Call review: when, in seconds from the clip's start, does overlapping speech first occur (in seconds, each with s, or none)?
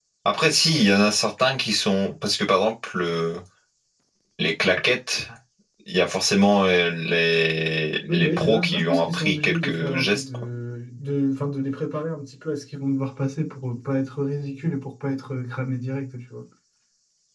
8.1 s